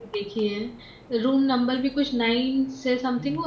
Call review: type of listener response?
taking over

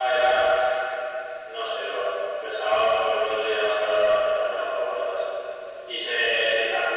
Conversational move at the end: listening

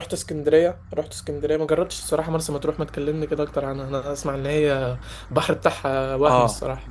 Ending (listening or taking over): taking over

